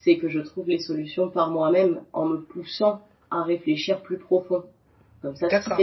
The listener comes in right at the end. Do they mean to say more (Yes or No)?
No